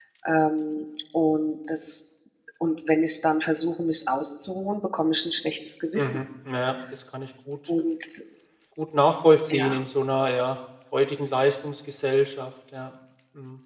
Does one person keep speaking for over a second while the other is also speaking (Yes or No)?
No